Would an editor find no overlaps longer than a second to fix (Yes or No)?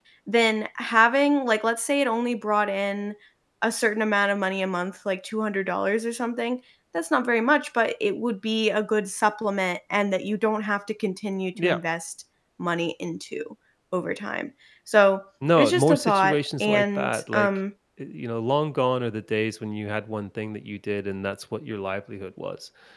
No